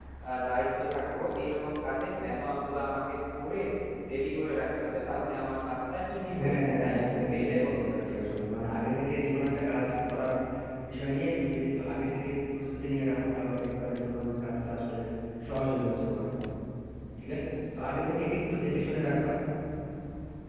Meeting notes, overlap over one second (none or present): present